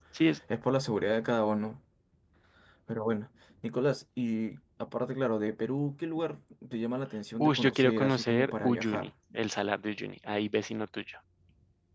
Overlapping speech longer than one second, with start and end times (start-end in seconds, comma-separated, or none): 7.4-9.1